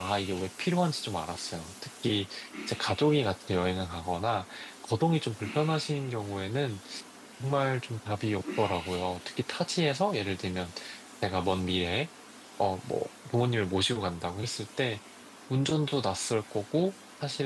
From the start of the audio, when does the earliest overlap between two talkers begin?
none

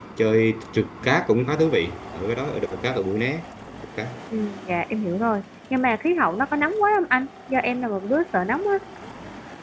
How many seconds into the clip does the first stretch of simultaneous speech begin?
none

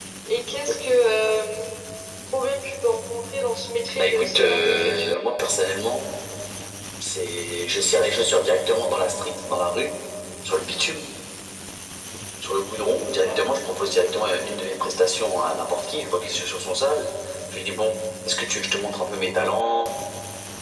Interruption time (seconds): 4.0 s

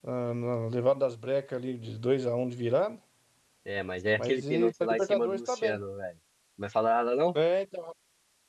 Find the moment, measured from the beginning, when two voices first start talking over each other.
4.2 s

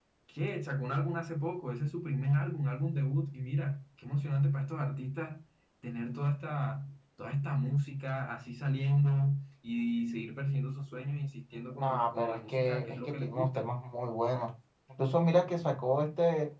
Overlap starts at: 11.8 s

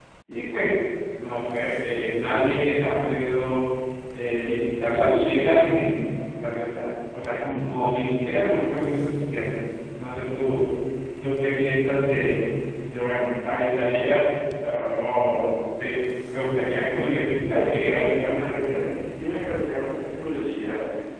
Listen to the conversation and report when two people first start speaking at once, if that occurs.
17.6 s

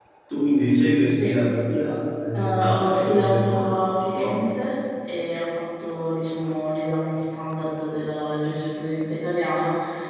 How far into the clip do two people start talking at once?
2.3 s

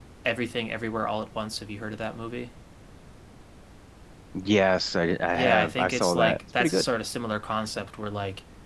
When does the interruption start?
5.3 s

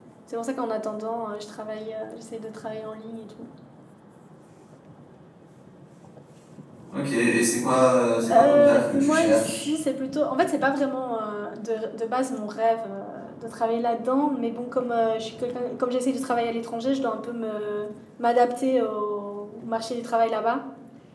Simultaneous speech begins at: 8.3 s

